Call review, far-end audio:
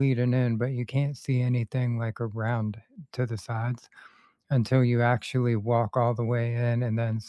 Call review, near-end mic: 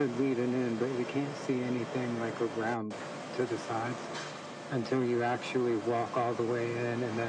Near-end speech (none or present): none